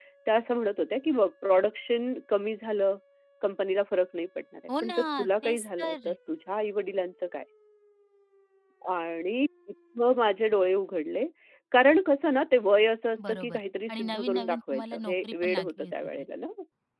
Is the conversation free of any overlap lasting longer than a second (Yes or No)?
No